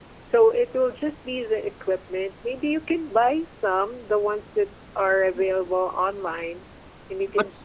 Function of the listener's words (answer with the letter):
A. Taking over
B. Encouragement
A